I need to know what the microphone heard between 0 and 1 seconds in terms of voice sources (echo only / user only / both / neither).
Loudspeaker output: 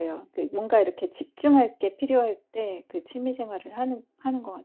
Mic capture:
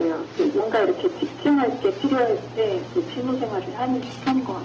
echo only